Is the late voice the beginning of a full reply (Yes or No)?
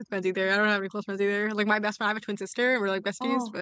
Yes